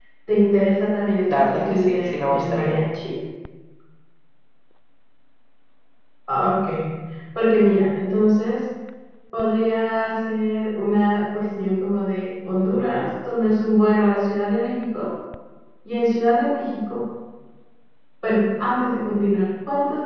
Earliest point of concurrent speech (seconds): 1.3 s

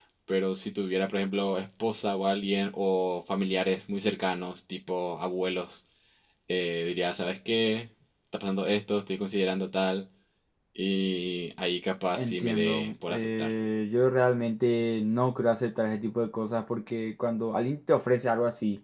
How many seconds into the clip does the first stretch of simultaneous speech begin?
12.2 s

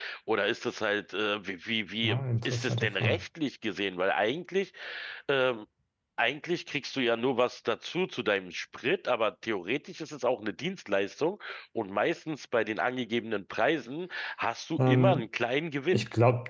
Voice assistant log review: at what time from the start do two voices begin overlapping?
2.0 s

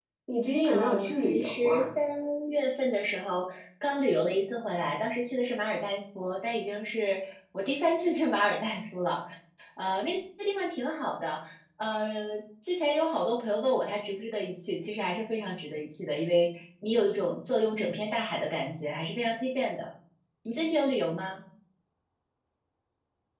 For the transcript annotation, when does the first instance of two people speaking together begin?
0.6 s

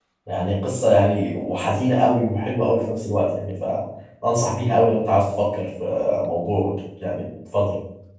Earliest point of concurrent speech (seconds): none

